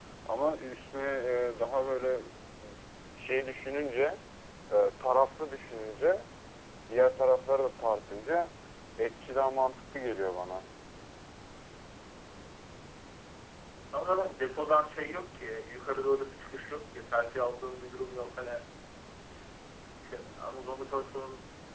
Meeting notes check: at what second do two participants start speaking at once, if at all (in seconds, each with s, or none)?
none